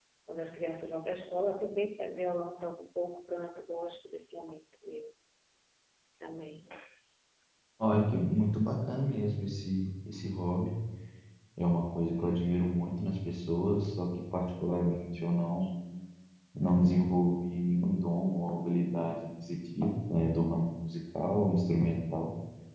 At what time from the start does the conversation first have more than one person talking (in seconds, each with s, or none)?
none